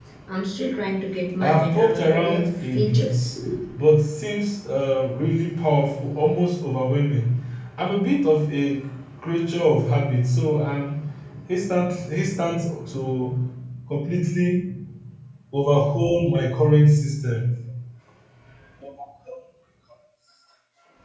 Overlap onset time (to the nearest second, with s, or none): 1 s